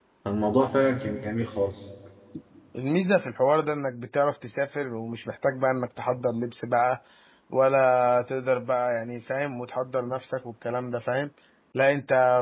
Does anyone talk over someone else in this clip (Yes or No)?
No